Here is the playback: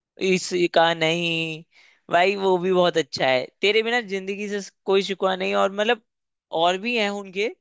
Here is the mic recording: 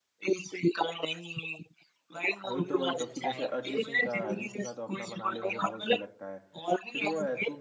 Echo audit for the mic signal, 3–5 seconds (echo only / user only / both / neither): both